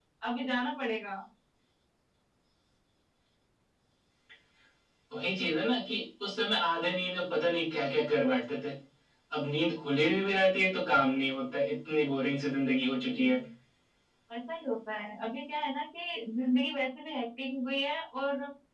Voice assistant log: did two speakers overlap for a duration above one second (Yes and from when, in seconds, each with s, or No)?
No